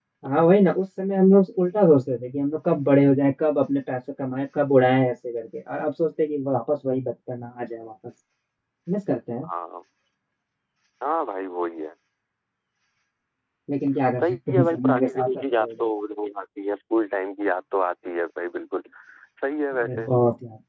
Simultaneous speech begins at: 14 s

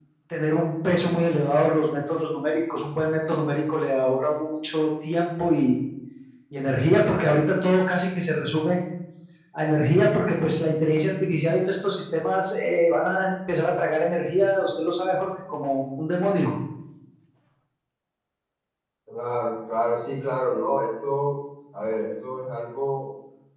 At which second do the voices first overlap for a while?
none

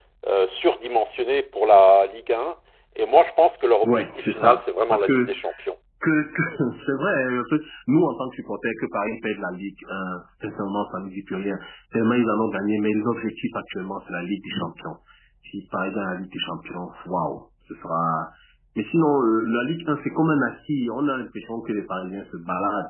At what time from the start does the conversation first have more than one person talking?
4 s

